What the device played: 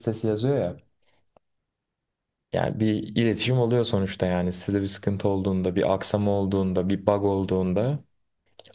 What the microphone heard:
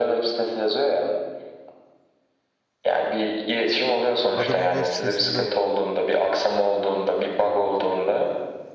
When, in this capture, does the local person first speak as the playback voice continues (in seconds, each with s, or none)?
4.3 s